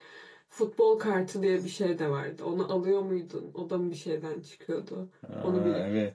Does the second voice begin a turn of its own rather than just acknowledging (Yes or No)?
Yes